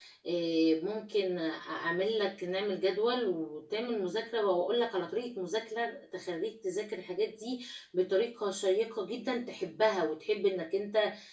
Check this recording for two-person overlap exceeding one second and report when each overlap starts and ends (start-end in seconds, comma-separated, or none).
none